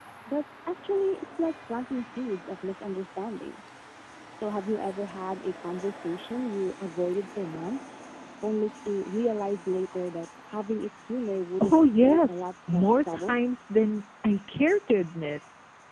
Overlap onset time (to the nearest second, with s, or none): 12 s